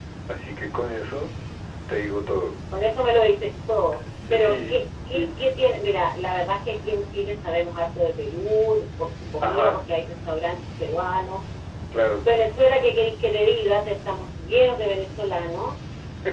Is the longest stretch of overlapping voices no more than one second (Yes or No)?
Yes